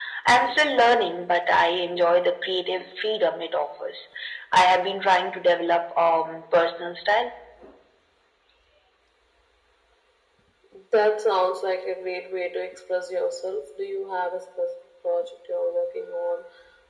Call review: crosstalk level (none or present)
none